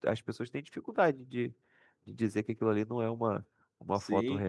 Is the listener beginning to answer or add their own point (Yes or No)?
Yes